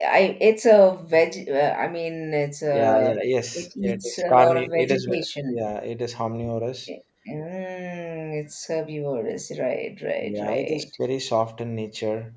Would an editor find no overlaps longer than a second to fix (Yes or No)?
No